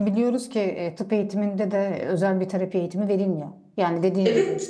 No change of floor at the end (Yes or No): Yes